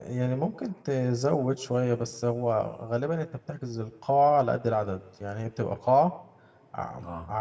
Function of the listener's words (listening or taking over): listening